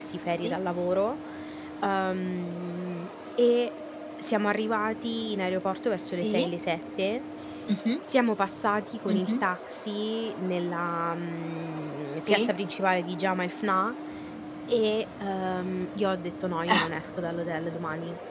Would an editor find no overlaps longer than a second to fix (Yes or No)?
Yes